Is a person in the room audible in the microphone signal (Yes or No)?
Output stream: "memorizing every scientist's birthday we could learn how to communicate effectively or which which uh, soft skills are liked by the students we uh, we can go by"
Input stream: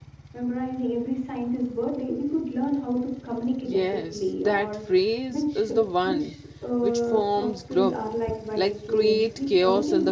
Yes